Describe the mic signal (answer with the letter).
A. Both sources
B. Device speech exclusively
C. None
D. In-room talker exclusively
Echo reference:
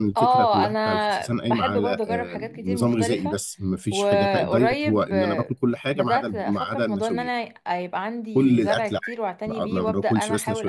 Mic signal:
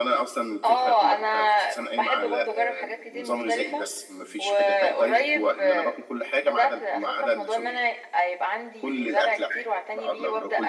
B